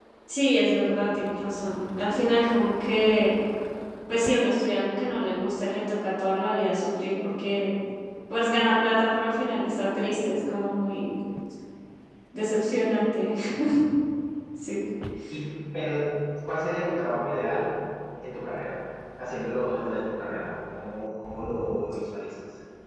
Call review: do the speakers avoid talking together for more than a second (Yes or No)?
Yes